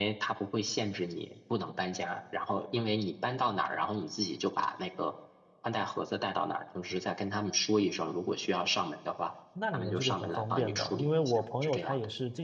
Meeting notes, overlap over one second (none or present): present